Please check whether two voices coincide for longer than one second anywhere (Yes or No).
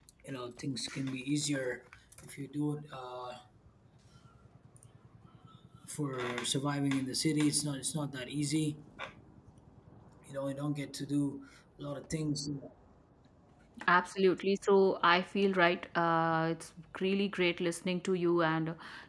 No